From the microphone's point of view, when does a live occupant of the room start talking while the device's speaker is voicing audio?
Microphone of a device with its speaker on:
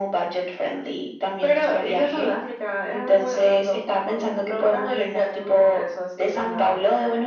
none

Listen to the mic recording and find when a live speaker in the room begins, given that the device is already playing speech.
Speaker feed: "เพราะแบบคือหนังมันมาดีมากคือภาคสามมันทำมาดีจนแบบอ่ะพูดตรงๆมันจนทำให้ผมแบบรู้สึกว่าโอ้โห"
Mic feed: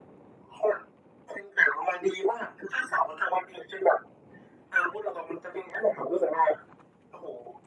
none

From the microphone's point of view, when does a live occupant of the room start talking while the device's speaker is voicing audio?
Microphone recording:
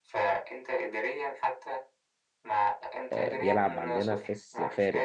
3 s

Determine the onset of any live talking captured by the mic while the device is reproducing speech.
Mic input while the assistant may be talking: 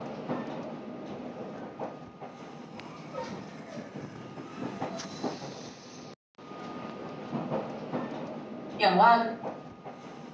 9 s

